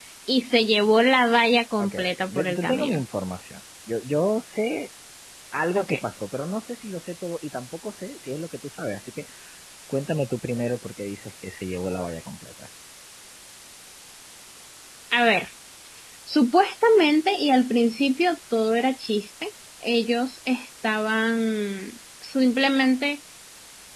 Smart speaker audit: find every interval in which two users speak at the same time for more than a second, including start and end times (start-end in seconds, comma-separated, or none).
1.8-3.0